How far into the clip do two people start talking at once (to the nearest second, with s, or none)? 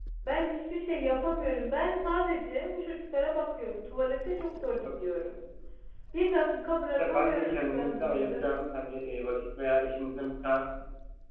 7 s